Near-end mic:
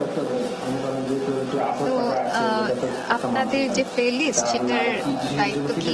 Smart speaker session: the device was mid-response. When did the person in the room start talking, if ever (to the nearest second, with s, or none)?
2 s